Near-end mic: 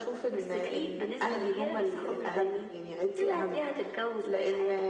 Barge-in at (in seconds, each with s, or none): none